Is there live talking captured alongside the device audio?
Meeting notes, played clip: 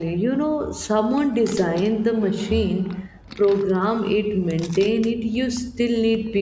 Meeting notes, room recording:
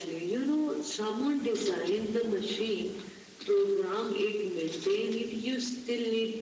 No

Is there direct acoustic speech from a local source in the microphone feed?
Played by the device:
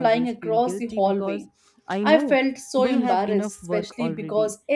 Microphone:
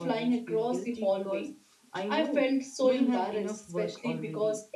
No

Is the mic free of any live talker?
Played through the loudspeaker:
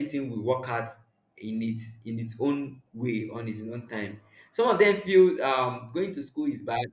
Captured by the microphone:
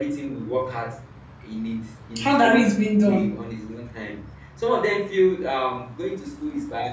No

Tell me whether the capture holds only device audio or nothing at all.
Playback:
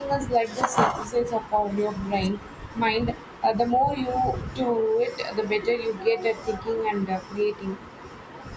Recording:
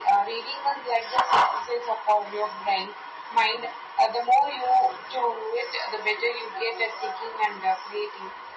Yes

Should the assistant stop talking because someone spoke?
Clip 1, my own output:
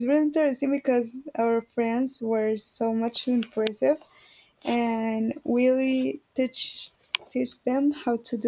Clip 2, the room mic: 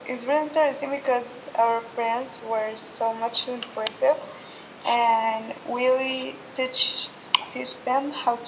No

